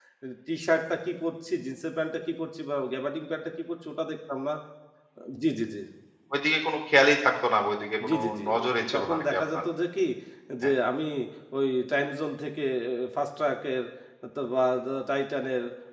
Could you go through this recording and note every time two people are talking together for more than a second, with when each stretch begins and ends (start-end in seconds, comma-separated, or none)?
8.1-9.6